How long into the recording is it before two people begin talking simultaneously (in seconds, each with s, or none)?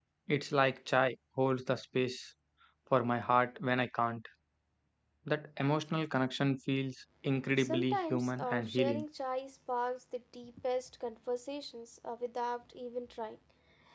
7.6 s